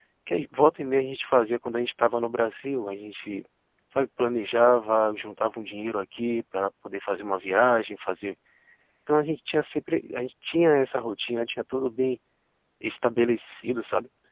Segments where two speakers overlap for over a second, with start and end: none

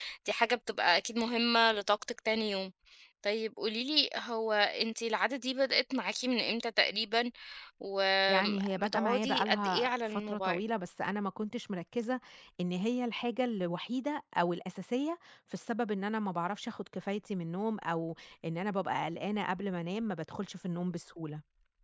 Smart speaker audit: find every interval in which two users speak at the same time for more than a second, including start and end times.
8.3-10.6

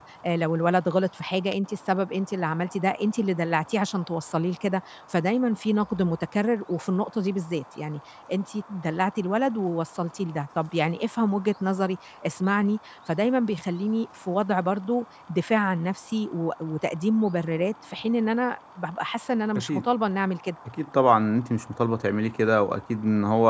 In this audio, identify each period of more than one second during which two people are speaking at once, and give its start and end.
none

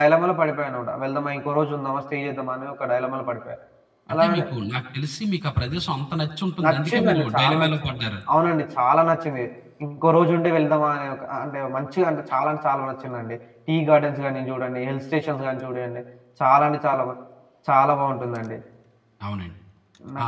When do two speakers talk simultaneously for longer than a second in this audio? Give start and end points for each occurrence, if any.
6.6-8.0

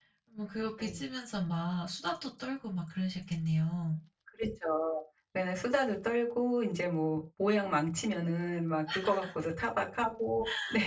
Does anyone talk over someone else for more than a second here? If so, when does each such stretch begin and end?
none

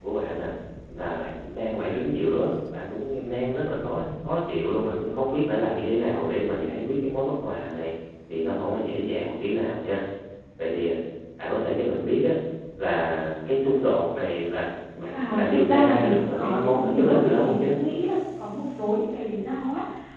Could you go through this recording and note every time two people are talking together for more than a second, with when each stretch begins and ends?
15.1-17.7

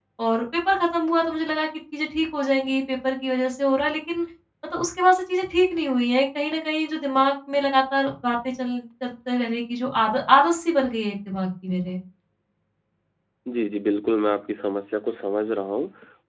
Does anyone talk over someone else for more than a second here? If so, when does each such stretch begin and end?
none

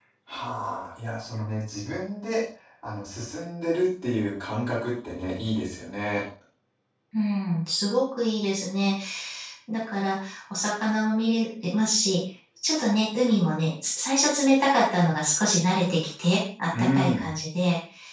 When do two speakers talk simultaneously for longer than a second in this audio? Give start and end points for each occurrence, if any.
none

